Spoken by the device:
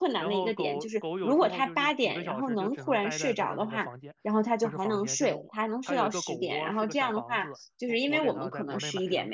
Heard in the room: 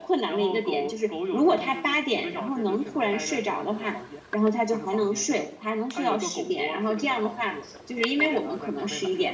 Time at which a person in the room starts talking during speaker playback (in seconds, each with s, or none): none